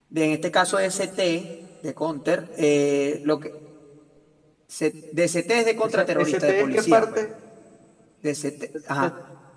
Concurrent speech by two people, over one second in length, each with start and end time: 5.8-7.2

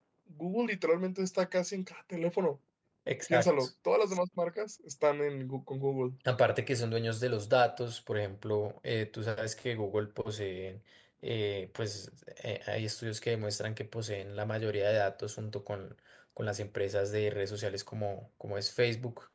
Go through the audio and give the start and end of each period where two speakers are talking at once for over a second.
none

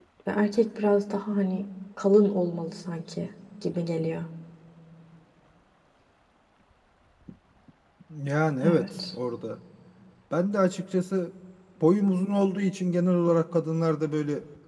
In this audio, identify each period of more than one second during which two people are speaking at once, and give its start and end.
none

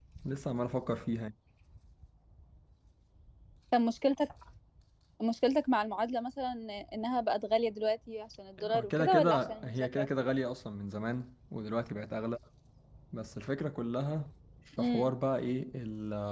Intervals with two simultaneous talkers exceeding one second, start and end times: 8.6-10.1

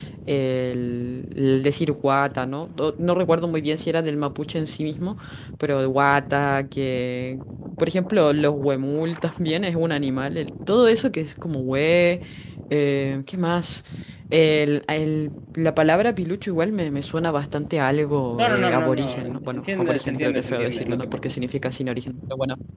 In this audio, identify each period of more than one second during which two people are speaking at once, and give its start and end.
18.4-21.4

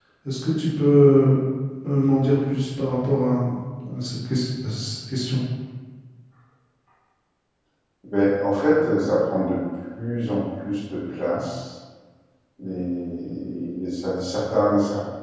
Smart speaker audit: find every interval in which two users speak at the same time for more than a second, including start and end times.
none

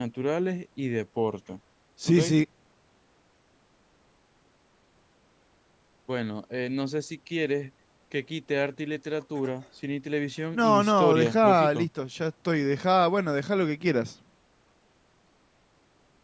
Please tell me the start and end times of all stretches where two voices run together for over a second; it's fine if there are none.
10.5-11.9

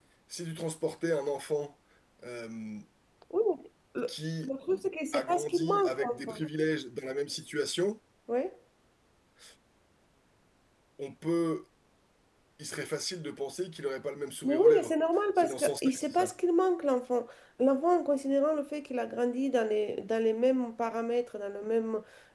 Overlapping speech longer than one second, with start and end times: 5.1-6.4, 14.5-16.3

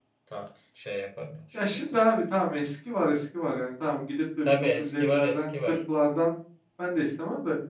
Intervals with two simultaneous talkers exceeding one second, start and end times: 4.4-5.8

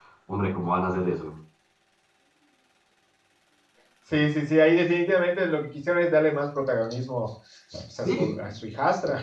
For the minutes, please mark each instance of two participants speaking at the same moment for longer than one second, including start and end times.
none

